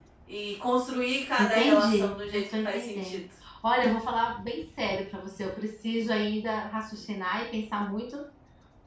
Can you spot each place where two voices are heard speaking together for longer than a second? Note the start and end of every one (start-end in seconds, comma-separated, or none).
1.4-3.2